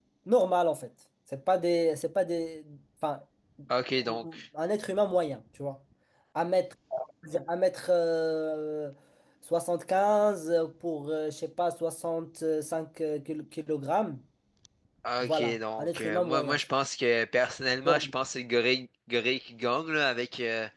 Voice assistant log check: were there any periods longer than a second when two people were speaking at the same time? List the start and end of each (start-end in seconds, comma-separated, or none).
15.2-16.6